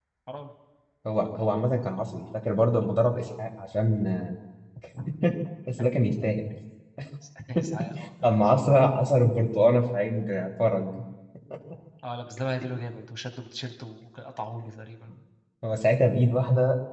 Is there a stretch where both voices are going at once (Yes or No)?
No